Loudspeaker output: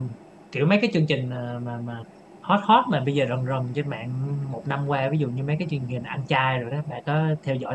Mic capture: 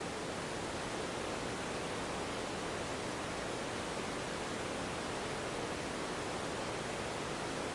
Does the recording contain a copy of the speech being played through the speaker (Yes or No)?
No